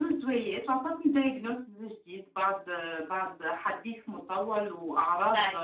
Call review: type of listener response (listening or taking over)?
listening